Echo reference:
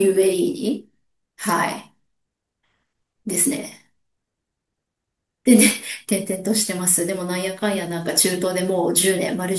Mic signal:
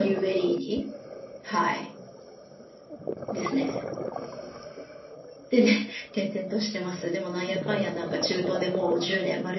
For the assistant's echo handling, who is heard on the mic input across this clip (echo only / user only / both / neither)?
echo only